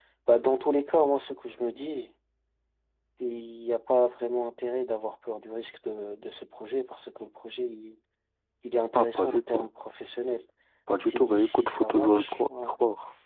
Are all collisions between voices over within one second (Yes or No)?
No